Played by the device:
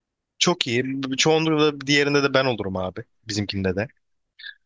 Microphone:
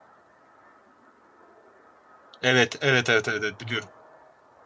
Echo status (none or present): none